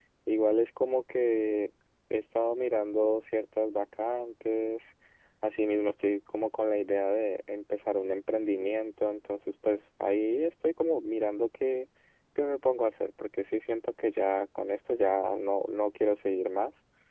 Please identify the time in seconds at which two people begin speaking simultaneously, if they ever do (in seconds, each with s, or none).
none